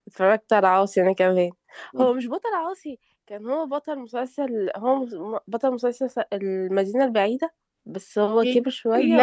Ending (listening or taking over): taking over